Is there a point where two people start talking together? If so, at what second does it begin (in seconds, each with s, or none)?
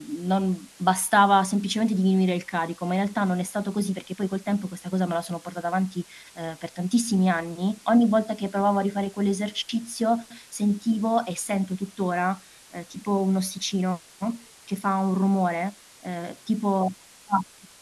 none